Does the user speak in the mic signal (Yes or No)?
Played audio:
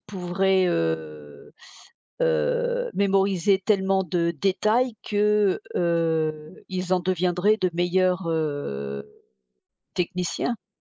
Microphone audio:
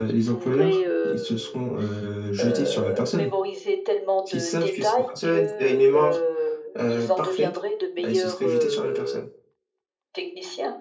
Yes